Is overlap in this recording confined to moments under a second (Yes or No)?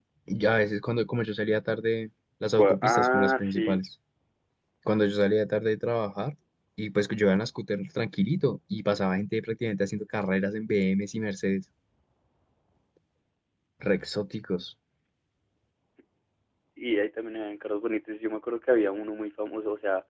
No